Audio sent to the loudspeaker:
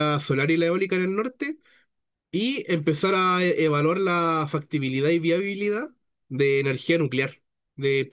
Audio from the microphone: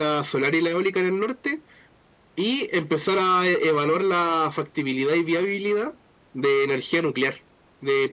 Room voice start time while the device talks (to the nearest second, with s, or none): none